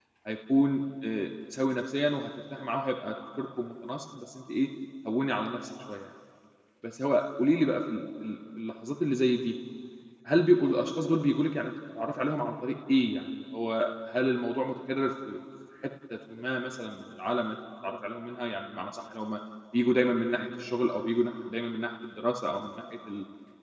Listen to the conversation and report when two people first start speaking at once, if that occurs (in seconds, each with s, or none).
none